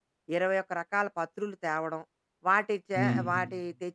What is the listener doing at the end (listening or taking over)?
listening